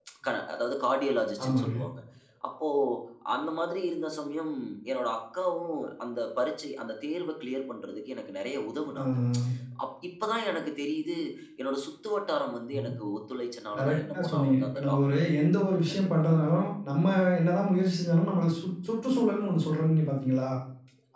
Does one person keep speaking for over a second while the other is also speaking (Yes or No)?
Yes